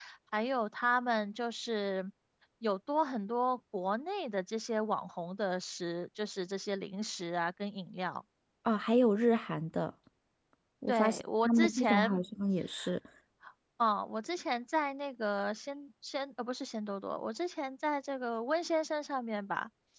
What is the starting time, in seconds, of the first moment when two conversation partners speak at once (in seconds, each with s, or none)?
10.9 s